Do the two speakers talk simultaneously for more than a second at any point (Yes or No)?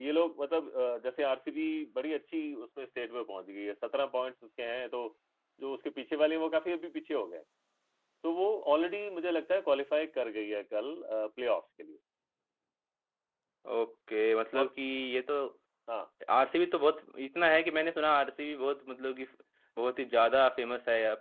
No